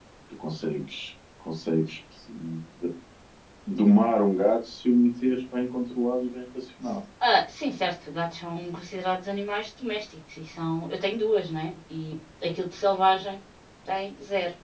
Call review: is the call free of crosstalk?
Yes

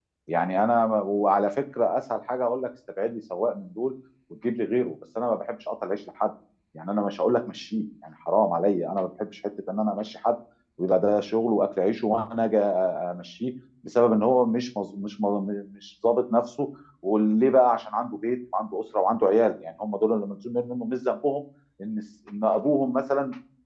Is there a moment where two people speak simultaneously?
No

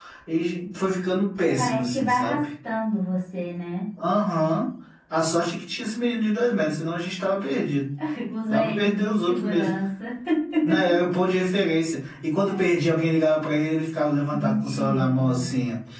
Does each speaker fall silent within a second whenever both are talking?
No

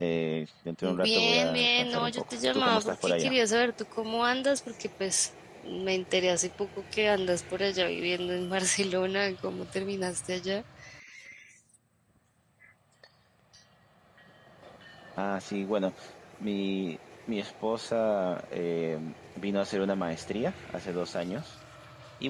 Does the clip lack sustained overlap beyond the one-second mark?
No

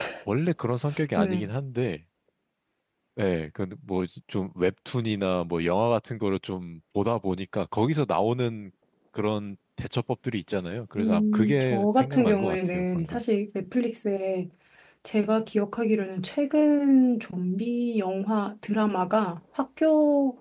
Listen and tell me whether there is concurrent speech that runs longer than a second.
Yes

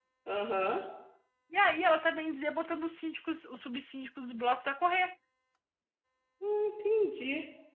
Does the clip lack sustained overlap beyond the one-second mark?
Yes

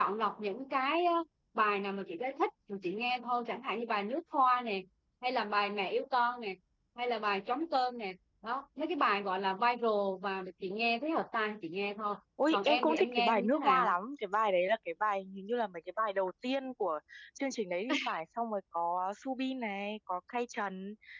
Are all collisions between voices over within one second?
No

